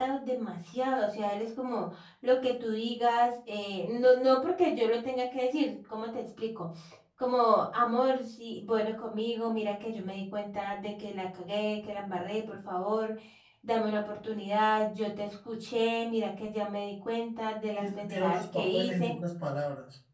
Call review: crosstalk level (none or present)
present